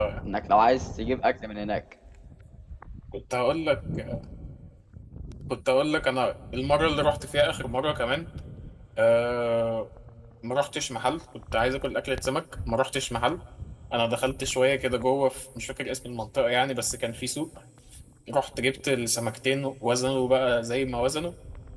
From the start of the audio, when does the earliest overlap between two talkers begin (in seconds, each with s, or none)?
none